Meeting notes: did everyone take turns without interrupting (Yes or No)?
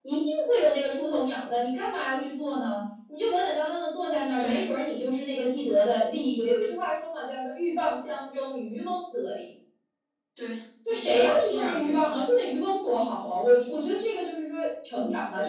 No